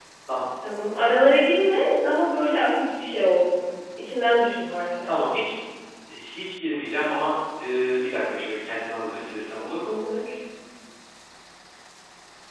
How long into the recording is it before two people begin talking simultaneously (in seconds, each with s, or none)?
none